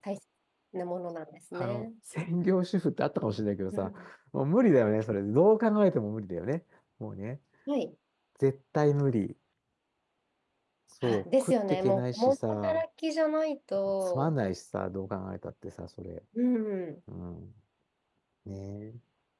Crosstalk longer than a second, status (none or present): present